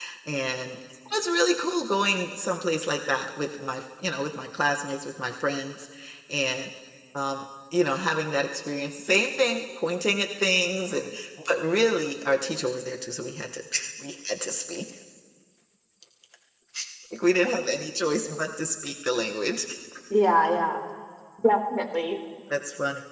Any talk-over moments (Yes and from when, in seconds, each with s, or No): No